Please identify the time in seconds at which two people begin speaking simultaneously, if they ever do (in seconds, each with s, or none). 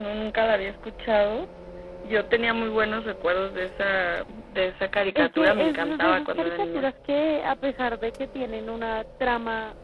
5.2 s